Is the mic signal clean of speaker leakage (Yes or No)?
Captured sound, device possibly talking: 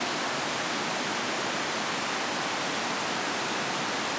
Yes